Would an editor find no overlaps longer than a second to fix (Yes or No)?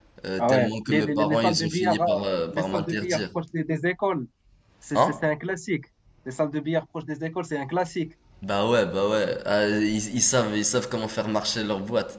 No